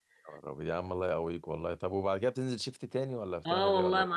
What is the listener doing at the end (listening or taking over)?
taking over